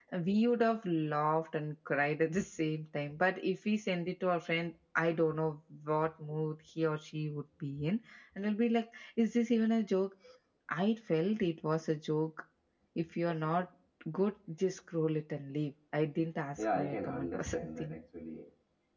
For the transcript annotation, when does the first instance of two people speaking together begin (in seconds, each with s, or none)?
16.6 s